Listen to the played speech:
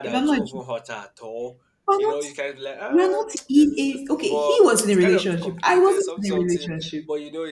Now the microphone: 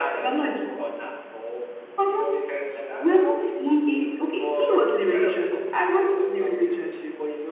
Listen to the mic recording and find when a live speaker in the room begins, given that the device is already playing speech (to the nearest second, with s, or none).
none